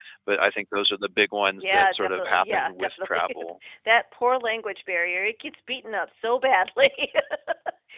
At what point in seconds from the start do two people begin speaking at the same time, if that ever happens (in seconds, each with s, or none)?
1.6 s